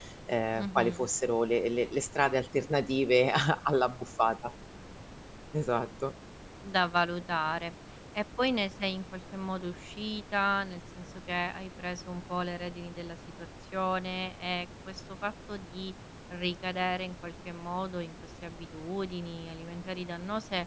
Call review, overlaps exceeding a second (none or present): none